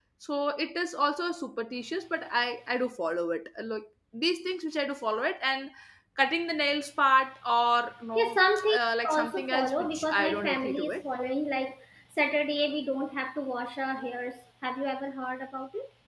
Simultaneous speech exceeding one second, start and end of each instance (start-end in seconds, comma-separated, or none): 8.8-11.0